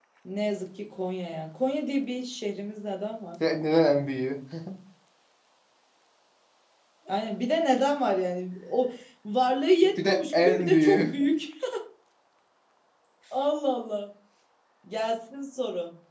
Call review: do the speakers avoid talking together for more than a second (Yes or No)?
No